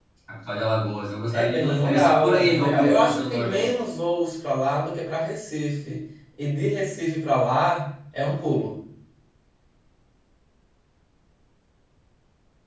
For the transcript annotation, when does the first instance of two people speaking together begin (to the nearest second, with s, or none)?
1 s